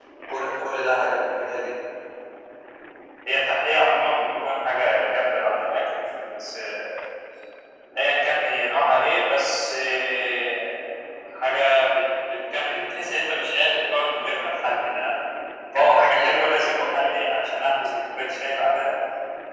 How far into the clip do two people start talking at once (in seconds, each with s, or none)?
15.7 s